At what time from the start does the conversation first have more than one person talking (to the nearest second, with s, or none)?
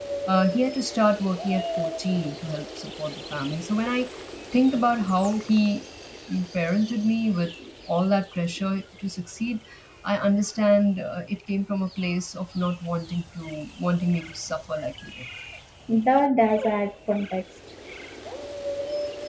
none